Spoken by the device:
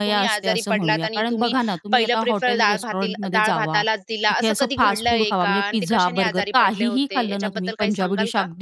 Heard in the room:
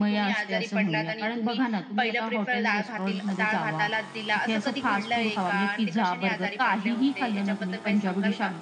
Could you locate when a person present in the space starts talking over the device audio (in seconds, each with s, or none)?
none